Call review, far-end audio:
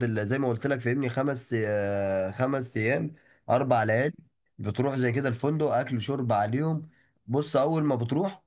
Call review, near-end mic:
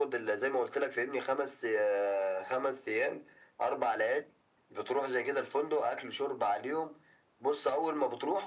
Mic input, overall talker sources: echo only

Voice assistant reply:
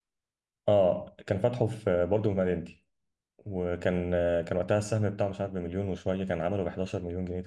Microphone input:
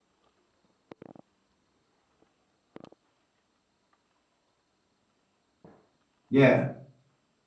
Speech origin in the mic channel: user only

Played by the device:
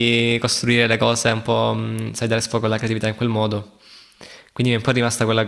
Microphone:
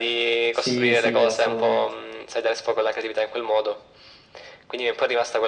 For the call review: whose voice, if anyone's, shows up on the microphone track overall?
both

